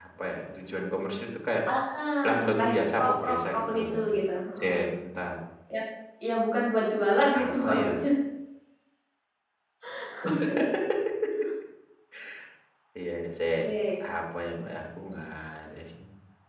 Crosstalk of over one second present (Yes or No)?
Yes